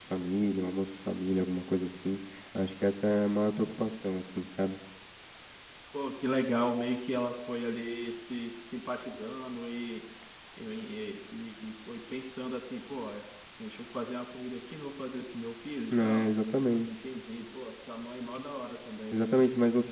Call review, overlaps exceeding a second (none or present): none